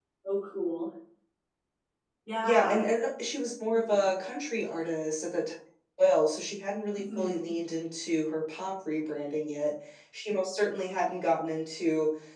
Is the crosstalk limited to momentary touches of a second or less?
Yes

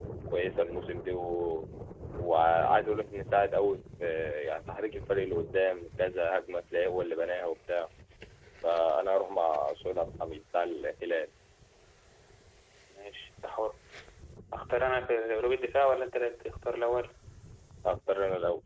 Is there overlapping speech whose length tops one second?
No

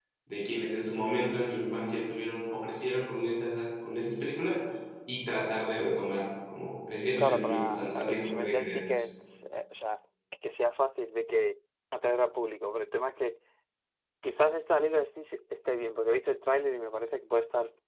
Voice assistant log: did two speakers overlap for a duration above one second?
Yes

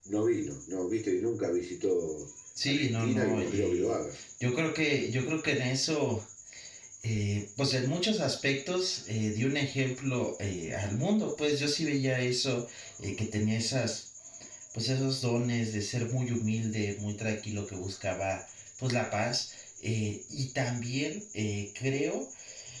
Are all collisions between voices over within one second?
No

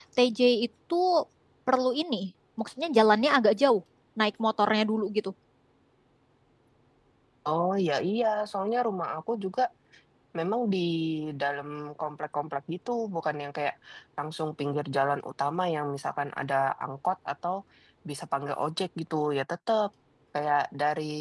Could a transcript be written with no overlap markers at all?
Yes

